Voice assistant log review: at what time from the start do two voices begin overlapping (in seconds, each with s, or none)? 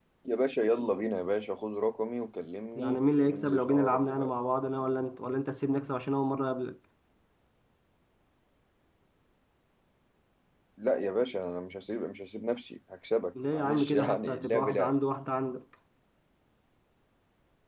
2.8 s